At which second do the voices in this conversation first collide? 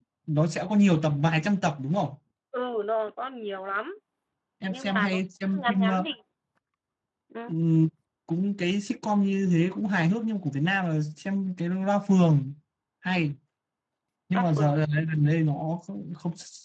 4.7 s

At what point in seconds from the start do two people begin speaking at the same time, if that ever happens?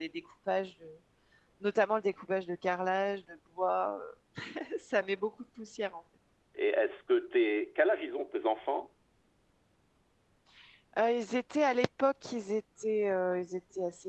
none

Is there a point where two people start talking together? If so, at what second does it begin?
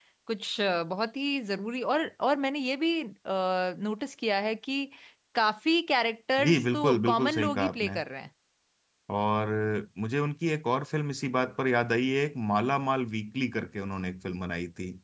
6.4 s

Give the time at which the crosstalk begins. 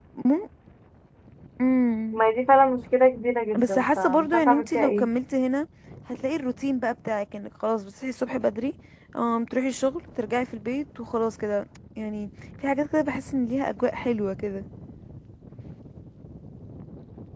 3.5 s

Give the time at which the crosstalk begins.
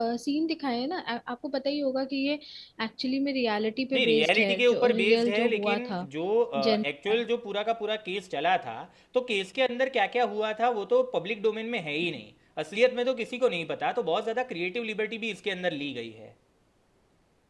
3.9 s

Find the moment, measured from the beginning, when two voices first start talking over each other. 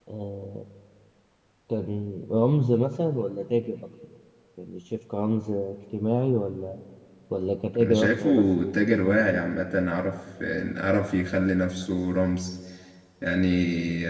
7.8 s

